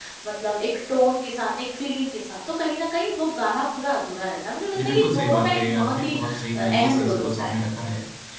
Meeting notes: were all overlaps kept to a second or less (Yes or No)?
No